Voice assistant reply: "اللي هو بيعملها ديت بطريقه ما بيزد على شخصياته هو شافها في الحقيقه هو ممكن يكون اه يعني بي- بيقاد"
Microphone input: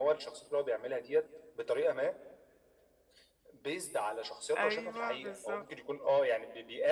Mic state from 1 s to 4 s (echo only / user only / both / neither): echo only